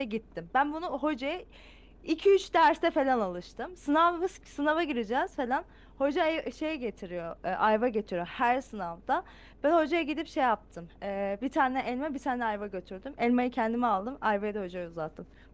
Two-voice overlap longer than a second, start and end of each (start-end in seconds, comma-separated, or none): none